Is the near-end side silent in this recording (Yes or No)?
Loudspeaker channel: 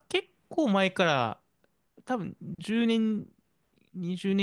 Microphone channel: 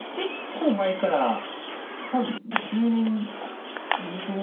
Yes